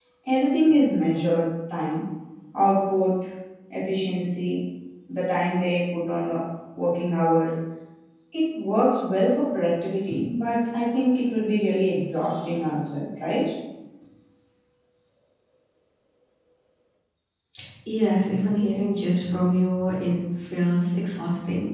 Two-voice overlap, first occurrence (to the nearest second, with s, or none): none